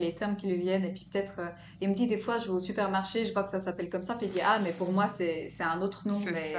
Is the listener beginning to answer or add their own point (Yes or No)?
Yes